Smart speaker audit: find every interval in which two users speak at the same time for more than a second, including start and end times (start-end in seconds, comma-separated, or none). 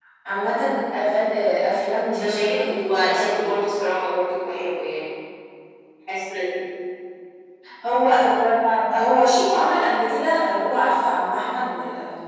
2.1-3.5